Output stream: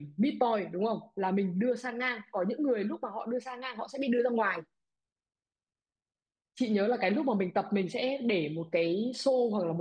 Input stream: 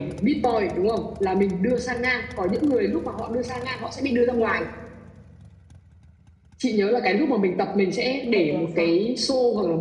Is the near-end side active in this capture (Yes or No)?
Yes